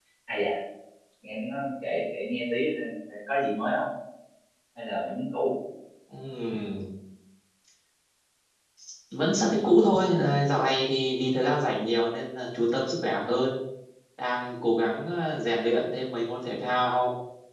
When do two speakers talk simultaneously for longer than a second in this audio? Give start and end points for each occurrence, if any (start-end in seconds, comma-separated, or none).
none